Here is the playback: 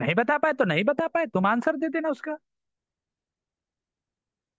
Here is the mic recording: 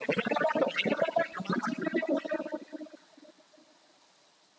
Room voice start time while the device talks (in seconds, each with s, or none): none